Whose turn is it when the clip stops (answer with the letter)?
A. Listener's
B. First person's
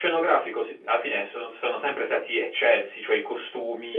B